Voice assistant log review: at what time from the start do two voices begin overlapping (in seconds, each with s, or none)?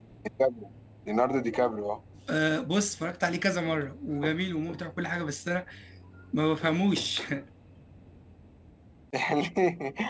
none